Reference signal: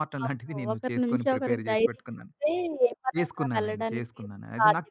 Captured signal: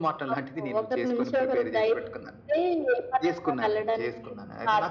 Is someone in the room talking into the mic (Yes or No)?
No